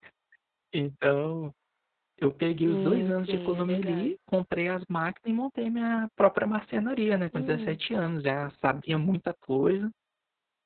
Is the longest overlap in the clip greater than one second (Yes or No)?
Yes